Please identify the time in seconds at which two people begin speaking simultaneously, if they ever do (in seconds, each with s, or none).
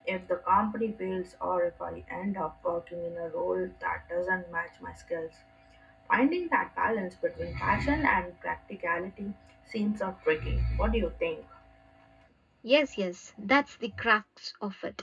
none